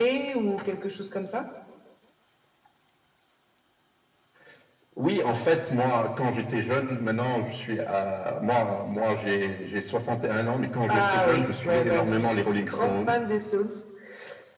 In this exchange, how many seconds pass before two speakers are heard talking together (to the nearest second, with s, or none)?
11 s